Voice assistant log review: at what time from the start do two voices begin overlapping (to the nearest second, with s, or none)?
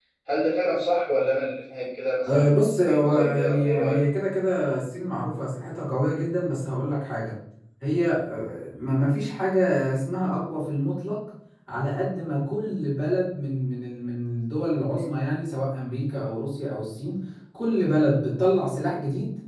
2 s